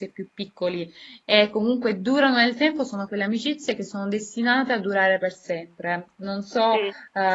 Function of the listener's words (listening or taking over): listening